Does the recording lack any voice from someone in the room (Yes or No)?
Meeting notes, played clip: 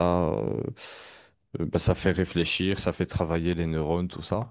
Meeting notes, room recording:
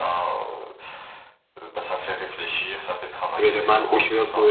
No